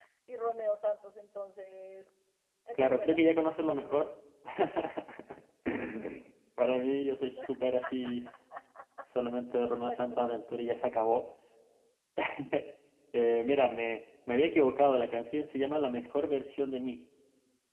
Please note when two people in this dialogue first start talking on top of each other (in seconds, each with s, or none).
2.8 s